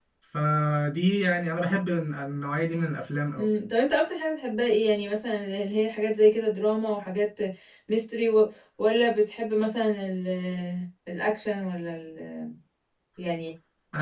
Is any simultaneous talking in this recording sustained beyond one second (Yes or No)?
No